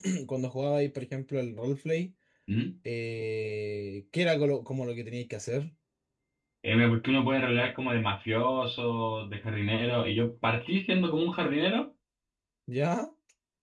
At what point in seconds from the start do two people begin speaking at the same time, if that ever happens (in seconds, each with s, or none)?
none